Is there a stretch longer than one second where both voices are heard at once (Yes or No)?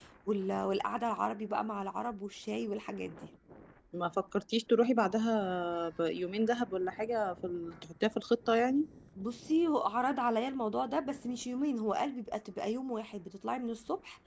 No